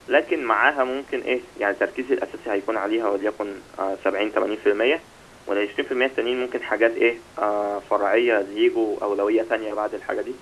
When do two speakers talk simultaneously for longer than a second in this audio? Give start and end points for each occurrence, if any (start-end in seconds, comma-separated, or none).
none